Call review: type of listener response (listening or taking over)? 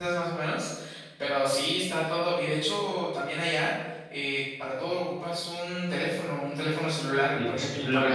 taking over